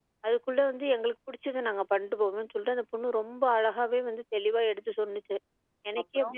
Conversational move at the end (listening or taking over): listening